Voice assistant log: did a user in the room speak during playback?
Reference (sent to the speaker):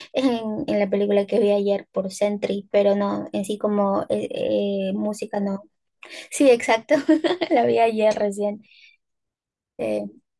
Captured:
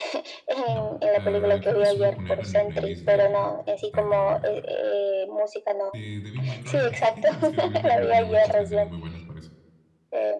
Yes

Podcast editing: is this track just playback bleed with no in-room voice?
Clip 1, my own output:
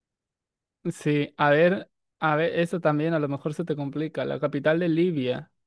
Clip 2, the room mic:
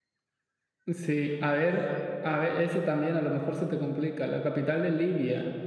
Yes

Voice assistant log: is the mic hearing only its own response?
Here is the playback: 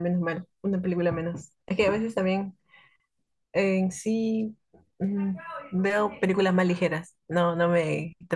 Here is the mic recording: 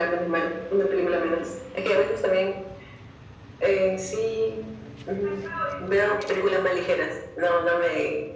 Yes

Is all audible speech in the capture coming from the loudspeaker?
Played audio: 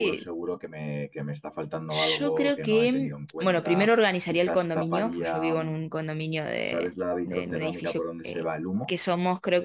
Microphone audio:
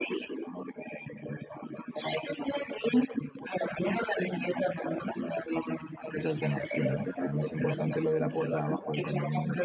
No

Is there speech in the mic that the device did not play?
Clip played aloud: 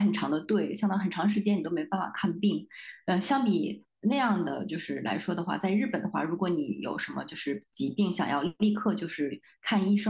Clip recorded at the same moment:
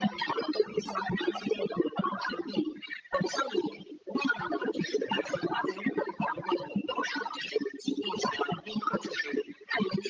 No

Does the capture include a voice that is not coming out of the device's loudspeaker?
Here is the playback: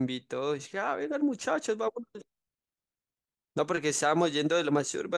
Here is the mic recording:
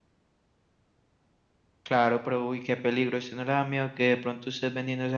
Yes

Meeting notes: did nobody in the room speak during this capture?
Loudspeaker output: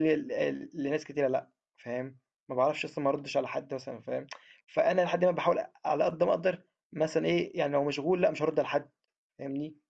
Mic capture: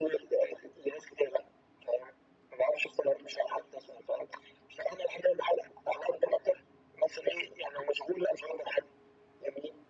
Yes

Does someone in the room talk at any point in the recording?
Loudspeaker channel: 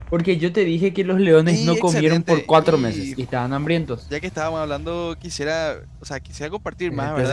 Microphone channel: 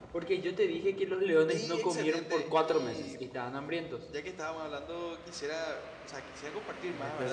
No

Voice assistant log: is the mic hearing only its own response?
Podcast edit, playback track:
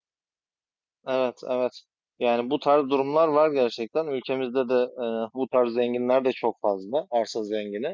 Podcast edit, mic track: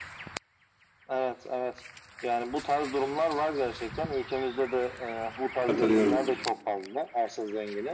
No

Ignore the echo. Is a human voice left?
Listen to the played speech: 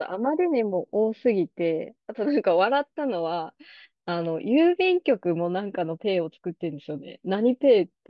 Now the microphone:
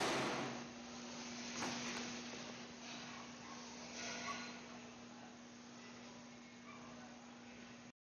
No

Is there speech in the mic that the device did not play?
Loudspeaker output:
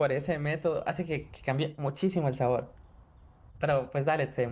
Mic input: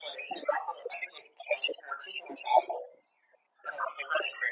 No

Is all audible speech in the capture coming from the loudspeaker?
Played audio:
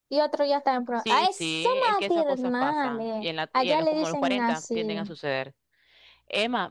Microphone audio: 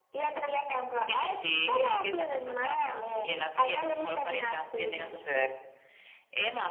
Yes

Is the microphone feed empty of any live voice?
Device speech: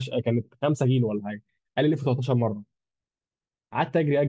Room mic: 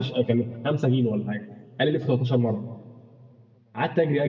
Yes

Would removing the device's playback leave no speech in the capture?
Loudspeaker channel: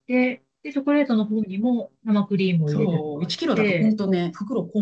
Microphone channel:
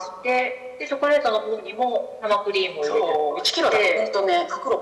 Yes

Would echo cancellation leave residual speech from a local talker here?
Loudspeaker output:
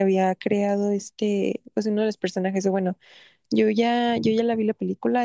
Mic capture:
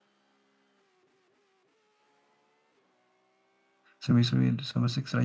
Yes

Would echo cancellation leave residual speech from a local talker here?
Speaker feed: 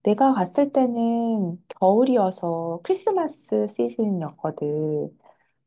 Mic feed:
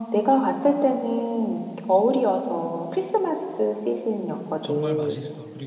Yes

